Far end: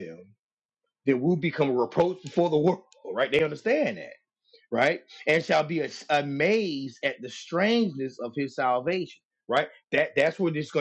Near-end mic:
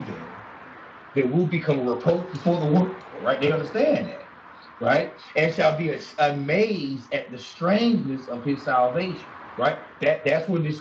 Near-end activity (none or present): none